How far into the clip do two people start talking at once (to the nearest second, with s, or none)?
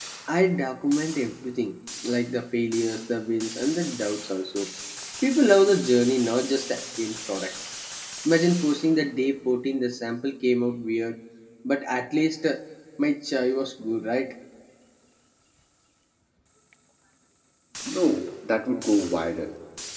none